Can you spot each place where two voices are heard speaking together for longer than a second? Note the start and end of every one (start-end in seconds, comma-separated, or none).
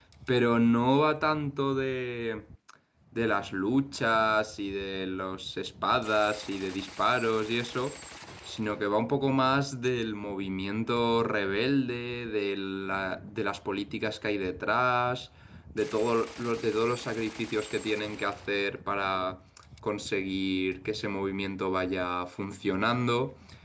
none